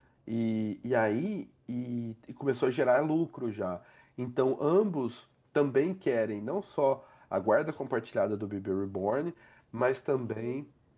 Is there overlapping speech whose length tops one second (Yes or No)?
No